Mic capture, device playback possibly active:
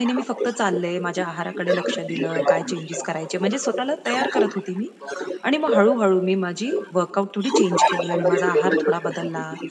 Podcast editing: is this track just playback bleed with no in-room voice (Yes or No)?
No